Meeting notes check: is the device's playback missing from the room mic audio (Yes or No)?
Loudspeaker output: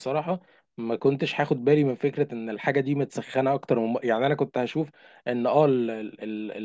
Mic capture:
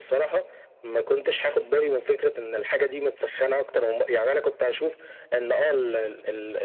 No